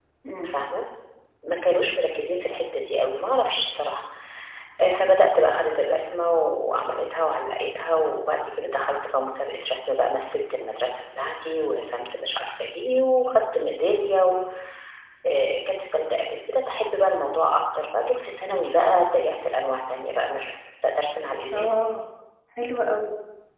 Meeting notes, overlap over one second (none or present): none